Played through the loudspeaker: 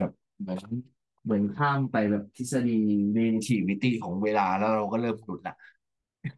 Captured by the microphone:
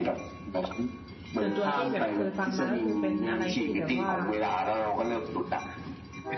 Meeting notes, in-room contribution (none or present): present